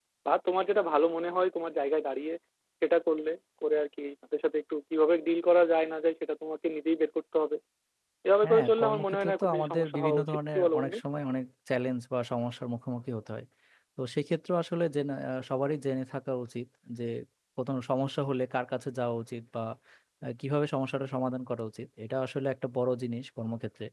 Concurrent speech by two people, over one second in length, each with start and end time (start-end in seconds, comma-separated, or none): 8.4-11.0